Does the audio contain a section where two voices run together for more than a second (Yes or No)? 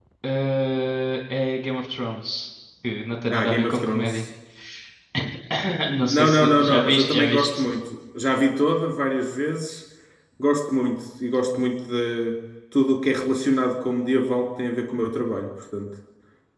Yes